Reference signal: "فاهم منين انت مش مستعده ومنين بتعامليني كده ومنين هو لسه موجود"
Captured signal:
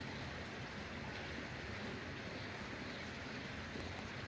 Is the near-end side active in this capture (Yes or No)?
No